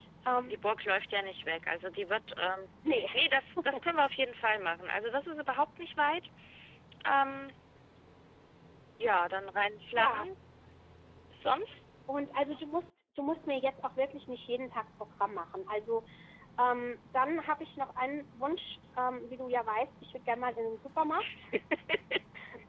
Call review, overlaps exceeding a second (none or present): none